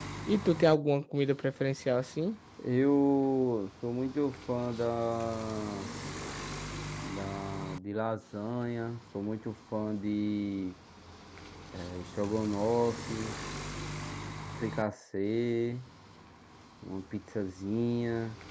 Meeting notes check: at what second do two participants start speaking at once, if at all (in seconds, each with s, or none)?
none